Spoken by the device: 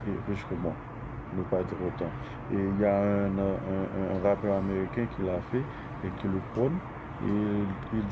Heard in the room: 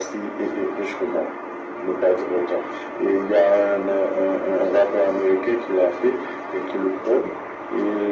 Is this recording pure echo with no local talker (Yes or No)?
Yes